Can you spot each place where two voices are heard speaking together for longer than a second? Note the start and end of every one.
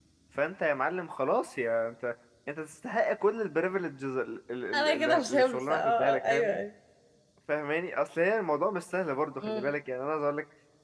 4.7-6.6

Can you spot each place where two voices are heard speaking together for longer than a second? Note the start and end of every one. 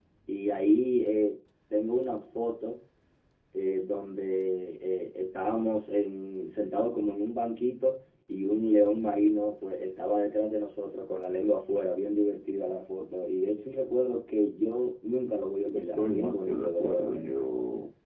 15.7-17.4

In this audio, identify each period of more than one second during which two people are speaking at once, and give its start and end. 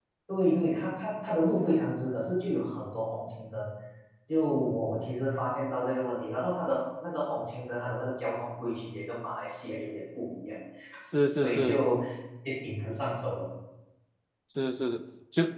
none

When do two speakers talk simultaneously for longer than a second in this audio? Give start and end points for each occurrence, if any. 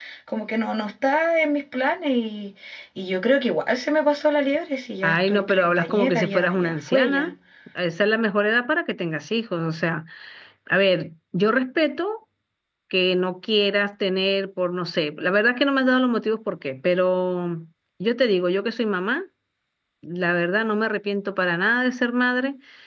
5.0-7.3

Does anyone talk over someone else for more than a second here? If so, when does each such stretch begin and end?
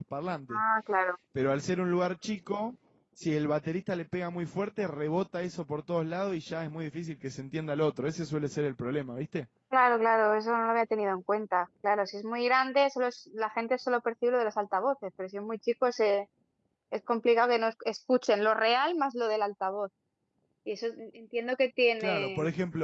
none

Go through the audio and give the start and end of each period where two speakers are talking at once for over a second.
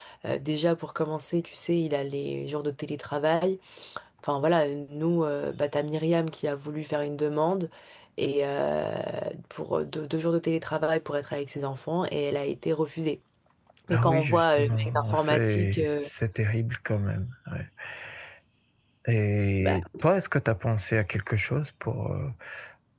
13.9-16.0

